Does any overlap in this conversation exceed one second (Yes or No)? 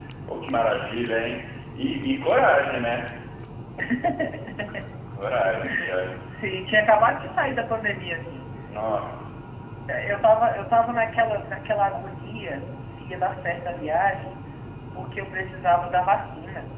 No